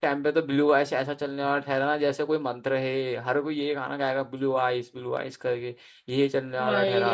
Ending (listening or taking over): listening